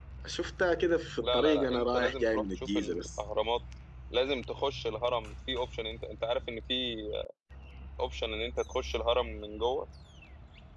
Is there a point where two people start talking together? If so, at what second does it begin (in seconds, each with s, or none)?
1.2 s